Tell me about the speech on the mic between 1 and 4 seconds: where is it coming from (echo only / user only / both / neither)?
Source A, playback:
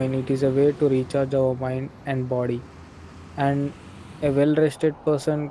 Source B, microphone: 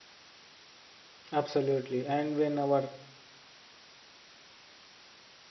user only